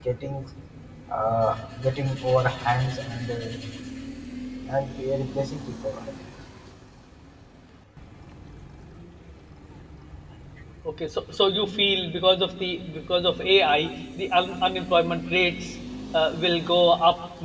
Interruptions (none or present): none